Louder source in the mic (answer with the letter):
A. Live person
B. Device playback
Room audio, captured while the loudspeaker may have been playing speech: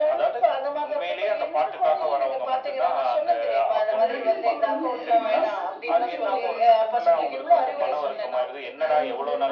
B